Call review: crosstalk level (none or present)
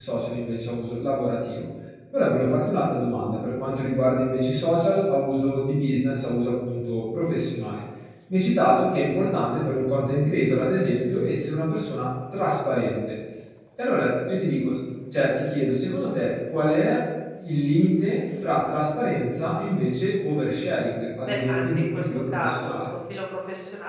present